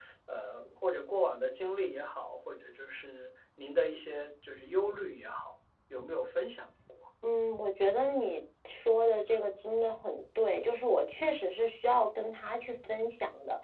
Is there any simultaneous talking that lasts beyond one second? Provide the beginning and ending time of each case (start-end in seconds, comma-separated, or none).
none